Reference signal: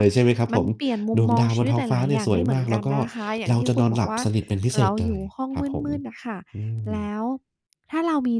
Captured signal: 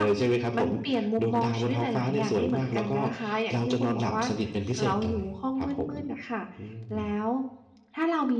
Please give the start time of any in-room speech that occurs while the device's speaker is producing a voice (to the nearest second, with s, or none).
none